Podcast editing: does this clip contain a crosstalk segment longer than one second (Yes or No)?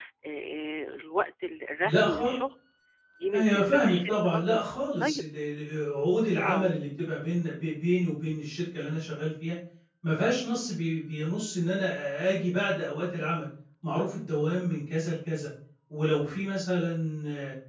Yes